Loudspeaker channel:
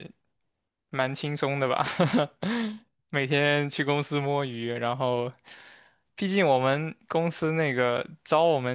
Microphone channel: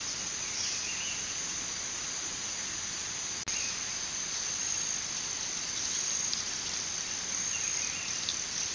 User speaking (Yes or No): No